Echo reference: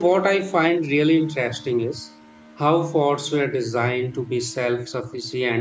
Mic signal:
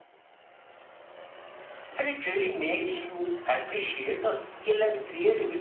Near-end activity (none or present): present